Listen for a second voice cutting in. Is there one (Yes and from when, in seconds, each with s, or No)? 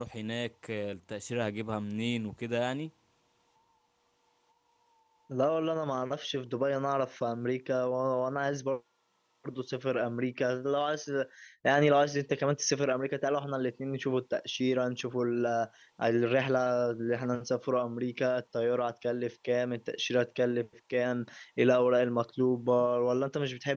No